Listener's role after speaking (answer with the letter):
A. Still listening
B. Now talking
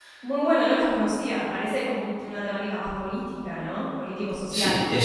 B